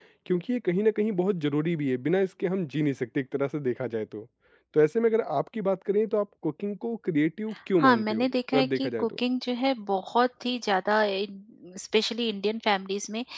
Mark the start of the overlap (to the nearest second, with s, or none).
8 s